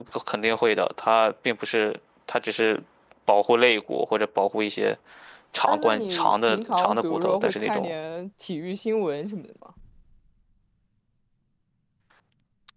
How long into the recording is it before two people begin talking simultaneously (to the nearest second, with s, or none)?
6 s